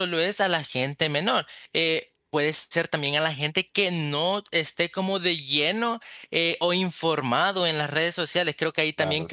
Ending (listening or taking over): listening